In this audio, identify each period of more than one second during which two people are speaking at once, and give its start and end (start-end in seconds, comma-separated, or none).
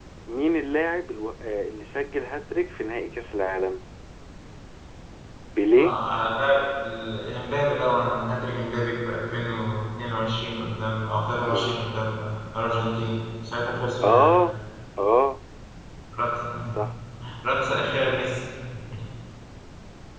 none